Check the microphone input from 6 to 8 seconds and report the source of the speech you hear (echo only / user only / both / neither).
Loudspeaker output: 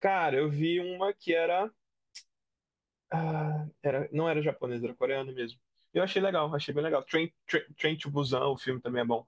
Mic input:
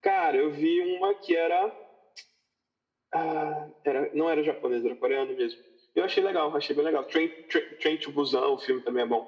echo only